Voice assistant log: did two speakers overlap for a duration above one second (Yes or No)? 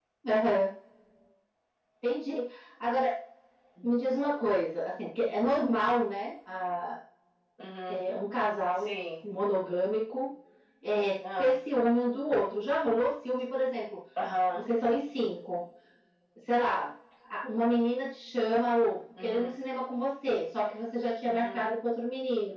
No